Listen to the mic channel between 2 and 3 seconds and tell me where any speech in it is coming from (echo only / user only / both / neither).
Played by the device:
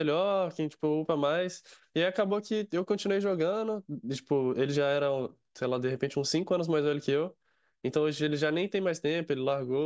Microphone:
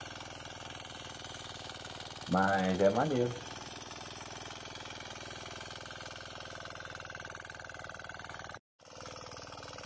user only